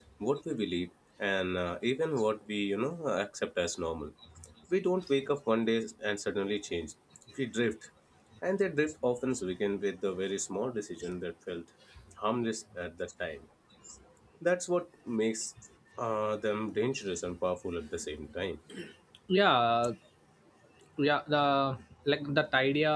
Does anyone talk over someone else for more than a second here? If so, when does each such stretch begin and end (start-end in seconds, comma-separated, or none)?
none